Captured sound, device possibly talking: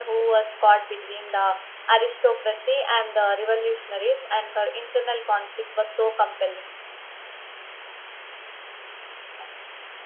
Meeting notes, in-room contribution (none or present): none